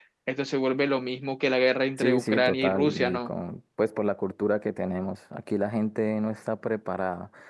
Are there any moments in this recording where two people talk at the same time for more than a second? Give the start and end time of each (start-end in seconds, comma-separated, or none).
2.0-3.3